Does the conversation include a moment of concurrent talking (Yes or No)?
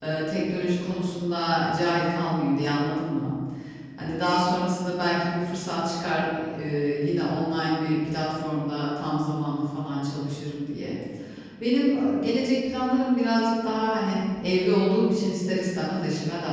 No